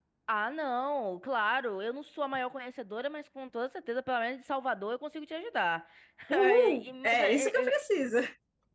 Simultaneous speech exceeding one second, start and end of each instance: 6.6-7.8

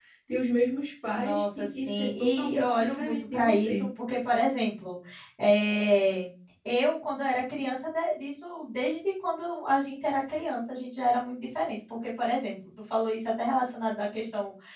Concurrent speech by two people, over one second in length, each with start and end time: 1.1-3.9

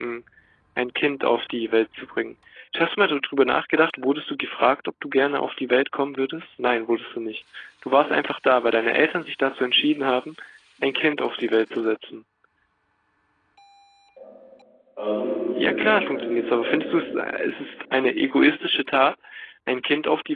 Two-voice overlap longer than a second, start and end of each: 15.6-16.9

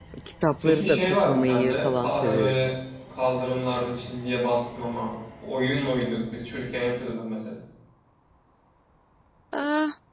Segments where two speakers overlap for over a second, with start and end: 0.6-2.7

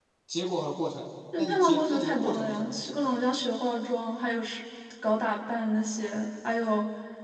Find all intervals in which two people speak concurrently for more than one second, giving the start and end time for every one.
1.4-2.8

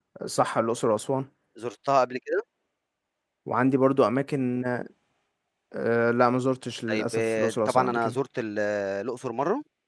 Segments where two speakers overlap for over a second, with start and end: 6.9-8.2

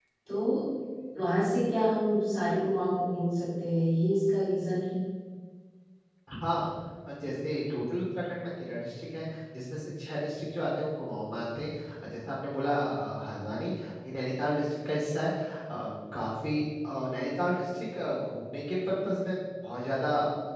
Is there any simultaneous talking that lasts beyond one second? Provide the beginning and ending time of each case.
none

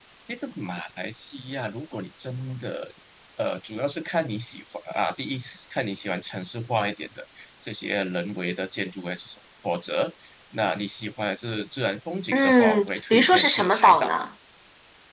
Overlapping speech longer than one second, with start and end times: 12.3-14.1

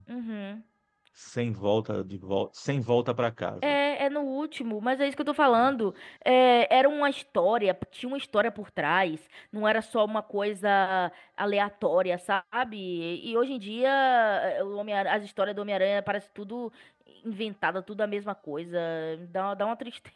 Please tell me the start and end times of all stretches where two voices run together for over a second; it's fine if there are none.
none

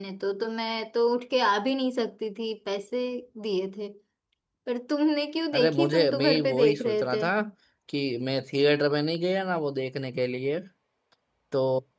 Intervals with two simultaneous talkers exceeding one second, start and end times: 5.5-7.2

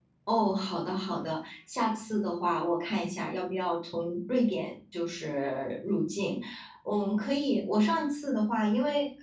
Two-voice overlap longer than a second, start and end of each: none

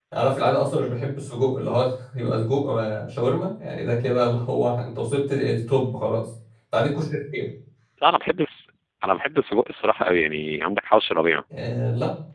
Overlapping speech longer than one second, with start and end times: none

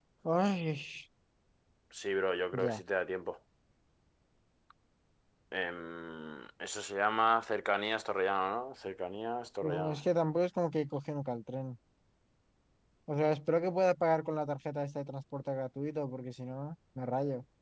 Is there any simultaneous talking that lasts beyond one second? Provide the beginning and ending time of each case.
none

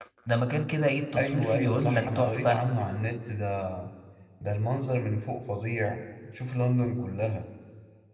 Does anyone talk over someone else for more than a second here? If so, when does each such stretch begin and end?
1.2-2.6

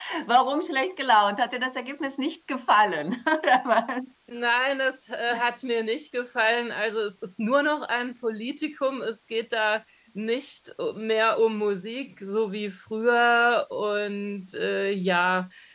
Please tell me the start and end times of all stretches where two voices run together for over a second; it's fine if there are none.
none

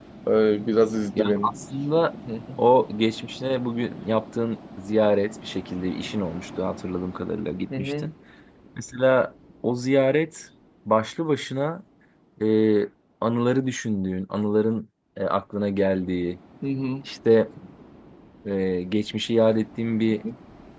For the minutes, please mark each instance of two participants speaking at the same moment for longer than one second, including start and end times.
none

